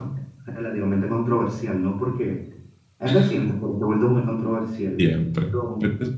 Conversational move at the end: taking over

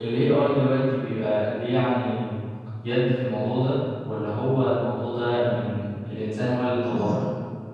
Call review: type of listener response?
taking over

